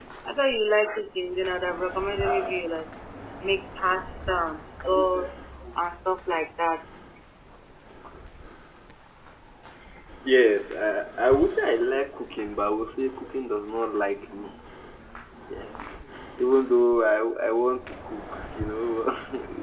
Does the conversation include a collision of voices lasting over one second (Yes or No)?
No